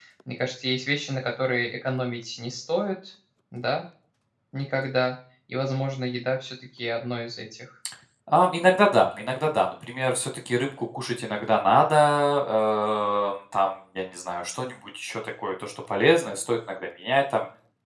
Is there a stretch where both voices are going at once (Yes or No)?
No